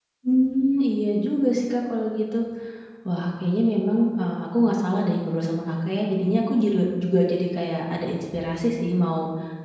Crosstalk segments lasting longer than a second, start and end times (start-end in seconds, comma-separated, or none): none